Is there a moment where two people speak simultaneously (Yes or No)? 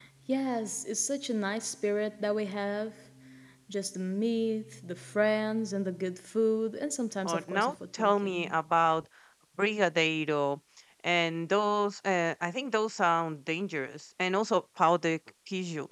Yes